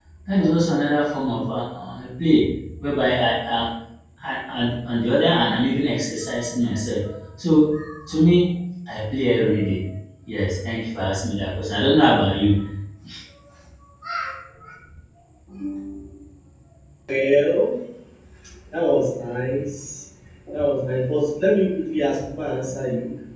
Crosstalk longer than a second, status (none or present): none